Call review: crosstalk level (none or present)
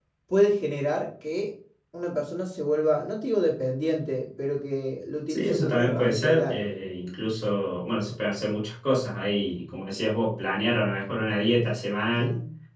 present